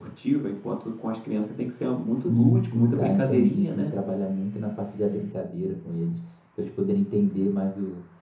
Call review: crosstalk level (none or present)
present